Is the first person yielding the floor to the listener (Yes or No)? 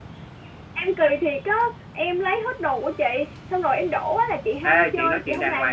Yes